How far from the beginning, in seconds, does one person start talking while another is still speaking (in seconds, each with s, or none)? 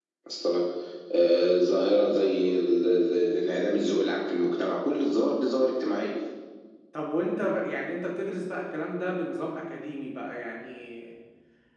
none